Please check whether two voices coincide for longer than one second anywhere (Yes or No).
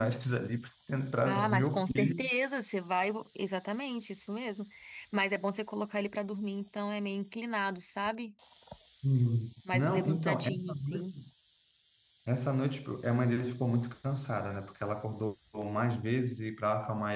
Yes